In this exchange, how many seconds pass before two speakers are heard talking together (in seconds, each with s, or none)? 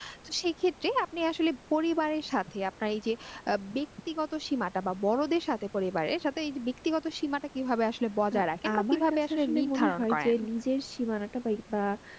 8.8 s